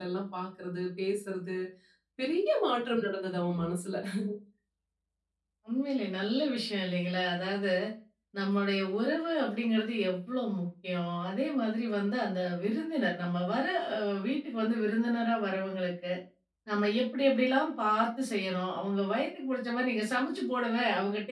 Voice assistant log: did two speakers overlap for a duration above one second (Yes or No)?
No